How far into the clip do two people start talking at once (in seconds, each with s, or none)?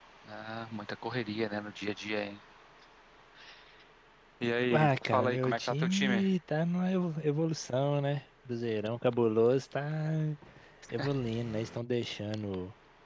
4.7 s